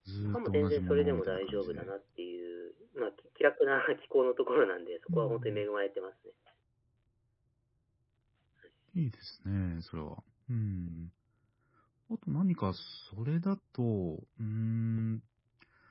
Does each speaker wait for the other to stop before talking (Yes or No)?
No